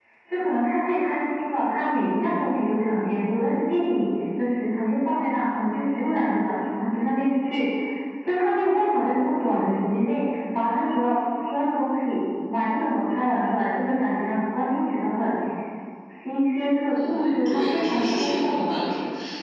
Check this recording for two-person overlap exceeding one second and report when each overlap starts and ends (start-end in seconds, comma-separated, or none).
16.9-18.8